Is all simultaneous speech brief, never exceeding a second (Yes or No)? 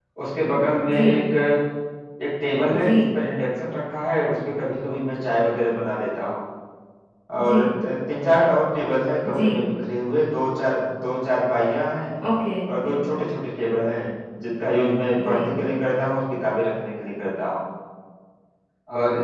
Yes